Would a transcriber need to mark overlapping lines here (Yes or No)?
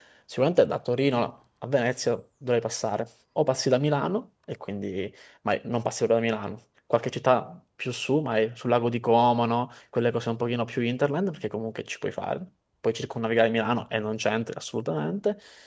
No